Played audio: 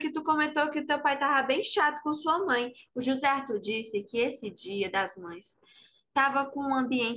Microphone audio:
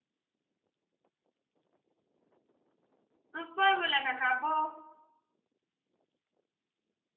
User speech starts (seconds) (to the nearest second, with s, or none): 3 s